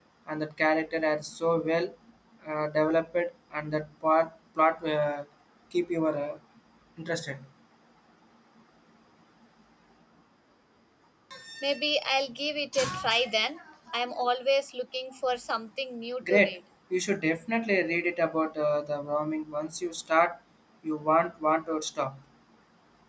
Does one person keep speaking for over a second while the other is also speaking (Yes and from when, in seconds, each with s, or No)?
No